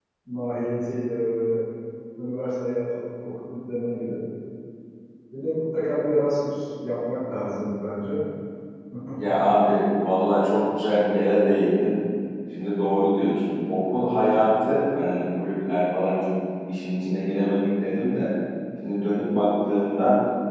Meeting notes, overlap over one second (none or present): none